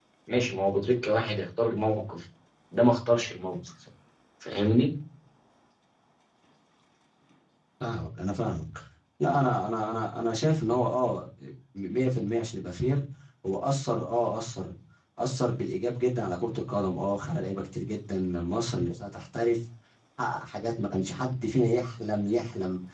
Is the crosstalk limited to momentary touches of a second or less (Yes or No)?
Yes